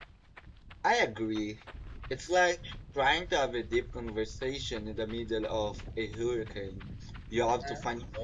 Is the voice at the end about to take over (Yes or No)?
No